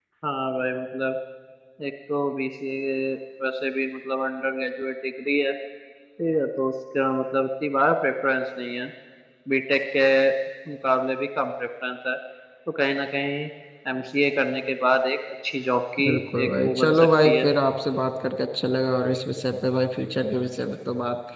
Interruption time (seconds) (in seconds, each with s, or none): 16.0 s